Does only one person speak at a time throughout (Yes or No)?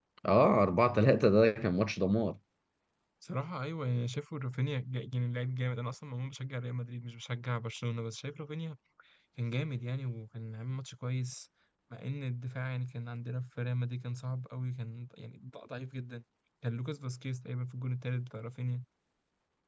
Yes